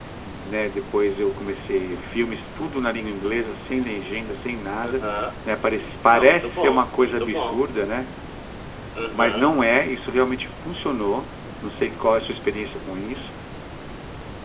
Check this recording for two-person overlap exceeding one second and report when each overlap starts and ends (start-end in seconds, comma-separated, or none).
6.1-7.6